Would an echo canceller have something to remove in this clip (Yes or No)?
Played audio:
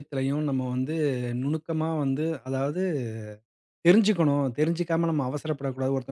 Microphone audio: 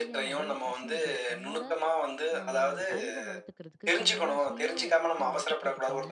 Yes